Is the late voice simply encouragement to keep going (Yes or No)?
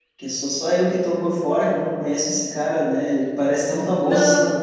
Yes